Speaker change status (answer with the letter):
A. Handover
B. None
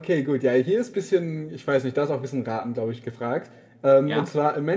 B